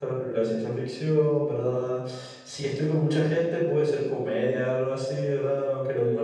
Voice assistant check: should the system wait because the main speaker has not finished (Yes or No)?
Yes